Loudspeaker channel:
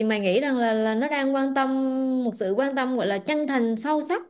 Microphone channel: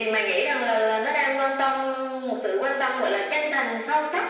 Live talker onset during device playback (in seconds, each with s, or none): none